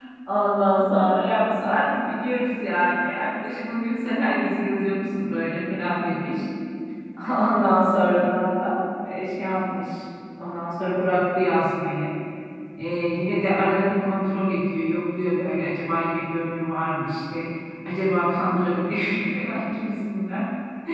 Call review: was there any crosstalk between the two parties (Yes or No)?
No